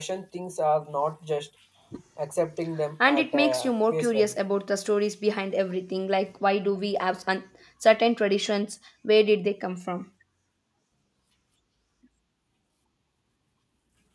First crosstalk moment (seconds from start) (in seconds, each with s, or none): 3.0 s